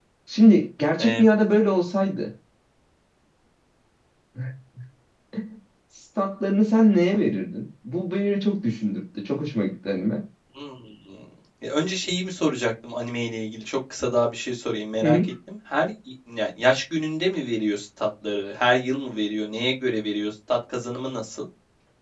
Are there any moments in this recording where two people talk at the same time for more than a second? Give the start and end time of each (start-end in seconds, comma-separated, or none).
none